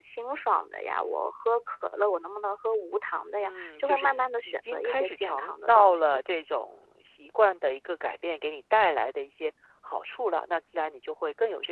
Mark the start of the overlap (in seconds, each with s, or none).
3.4 s